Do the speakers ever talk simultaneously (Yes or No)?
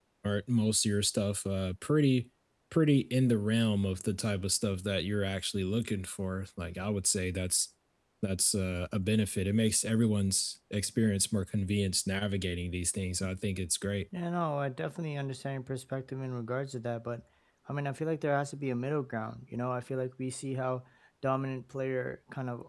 No